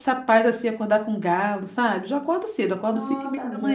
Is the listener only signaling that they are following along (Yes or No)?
Yes